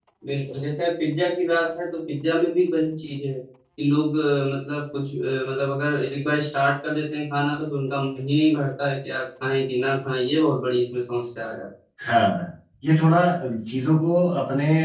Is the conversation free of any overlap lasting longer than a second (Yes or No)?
Yes